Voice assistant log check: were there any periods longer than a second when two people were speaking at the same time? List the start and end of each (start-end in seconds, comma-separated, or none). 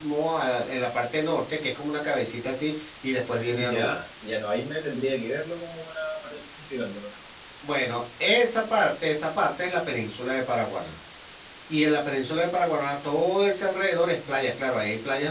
none